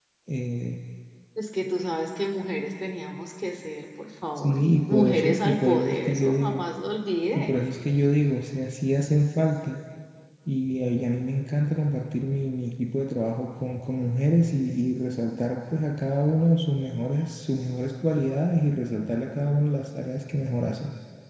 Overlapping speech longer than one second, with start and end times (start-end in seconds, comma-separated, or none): 4.4-6.6